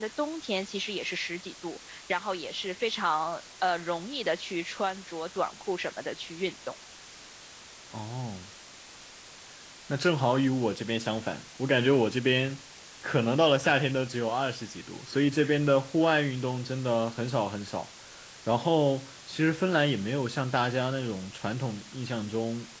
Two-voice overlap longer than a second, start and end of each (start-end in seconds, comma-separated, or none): none